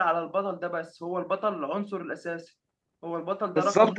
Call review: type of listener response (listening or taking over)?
taking over